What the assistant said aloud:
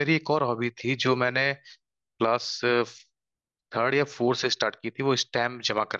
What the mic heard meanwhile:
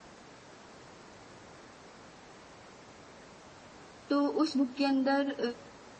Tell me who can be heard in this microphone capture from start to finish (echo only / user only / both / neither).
user only